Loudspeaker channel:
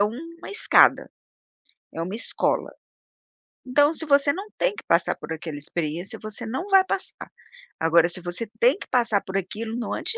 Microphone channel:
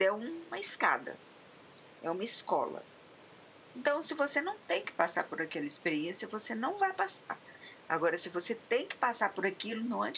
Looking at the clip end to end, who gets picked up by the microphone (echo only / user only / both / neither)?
echo only